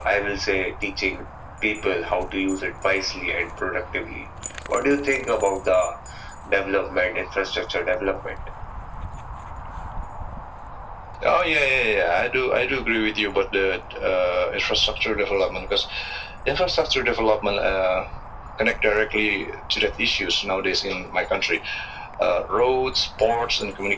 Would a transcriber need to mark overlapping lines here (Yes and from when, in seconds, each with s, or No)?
No